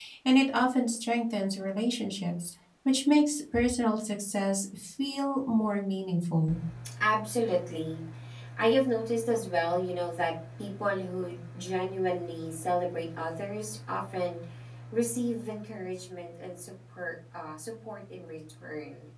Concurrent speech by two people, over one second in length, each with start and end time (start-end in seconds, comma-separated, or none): none